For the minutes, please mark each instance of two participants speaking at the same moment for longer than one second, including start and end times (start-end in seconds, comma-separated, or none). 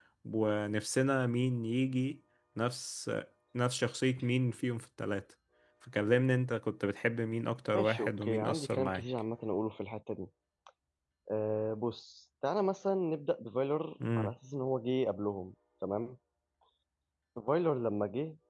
7.7-9.0